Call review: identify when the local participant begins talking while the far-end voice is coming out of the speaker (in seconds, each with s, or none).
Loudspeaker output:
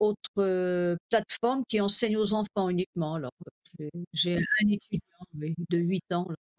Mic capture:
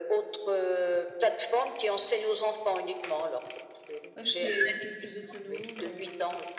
4.1 s